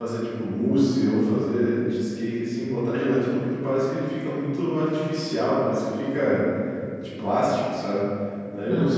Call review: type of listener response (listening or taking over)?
listening